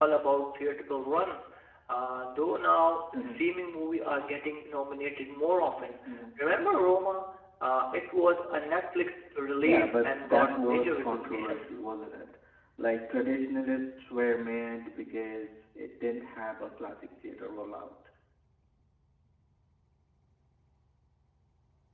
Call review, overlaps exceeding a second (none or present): present